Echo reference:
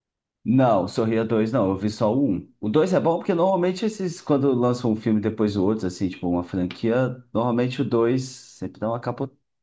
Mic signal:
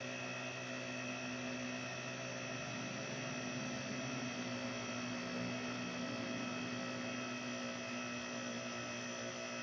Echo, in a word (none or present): none